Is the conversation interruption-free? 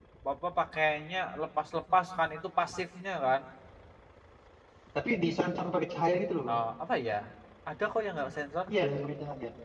Yes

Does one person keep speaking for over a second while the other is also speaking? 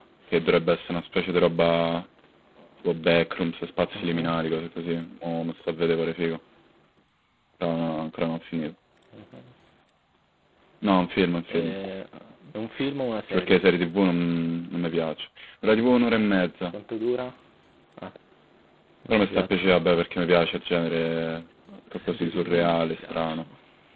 Yes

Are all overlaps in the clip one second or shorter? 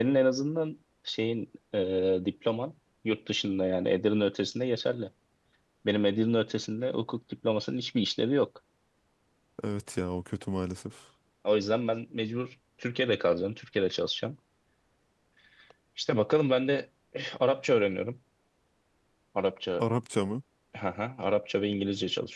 Yes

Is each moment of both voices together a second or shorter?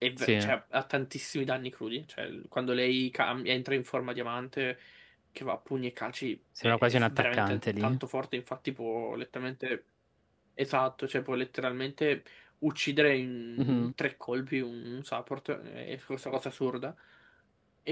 No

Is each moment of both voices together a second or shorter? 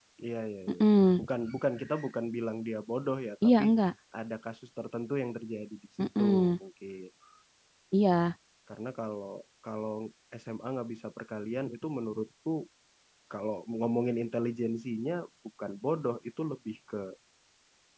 Yes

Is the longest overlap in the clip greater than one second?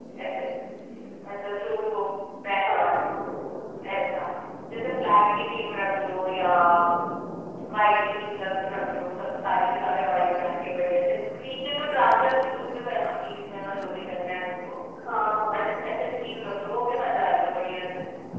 No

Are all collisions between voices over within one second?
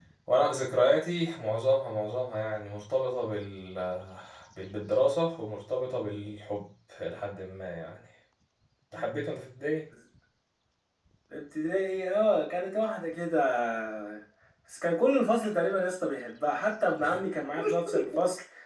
Yes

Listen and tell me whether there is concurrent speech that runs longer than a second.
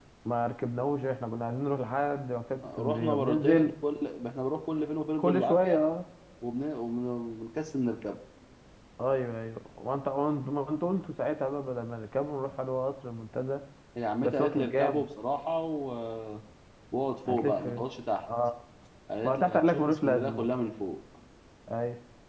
Yes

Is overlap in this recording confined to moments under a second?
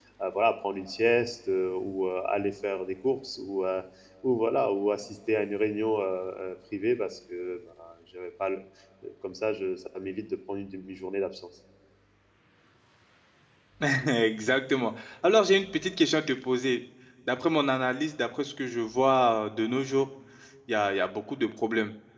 Yes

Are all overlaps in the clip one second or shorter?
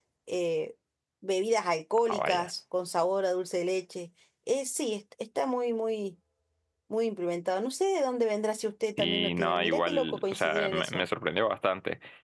No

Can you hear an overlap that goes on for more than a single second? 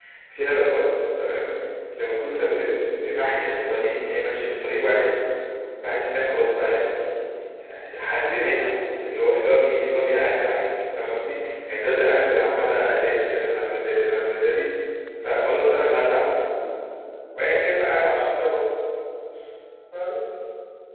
No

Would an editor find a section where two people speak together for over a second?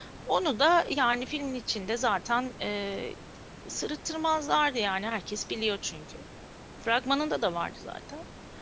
No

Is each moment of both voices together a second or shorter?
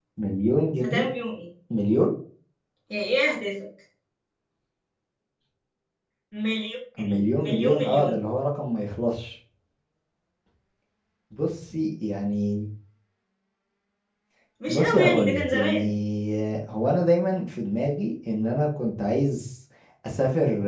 No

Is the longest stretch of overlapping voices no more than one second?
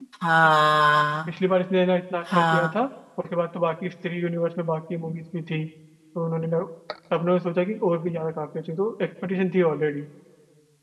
Yes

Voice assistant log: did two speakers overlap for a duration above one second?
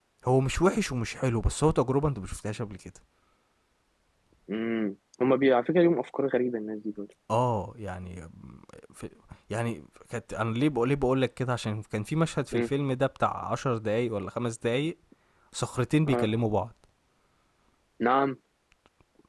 No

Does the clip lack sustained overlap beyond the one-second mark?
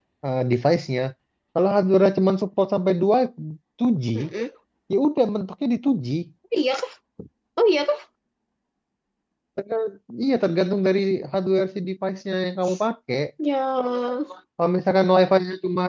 Yes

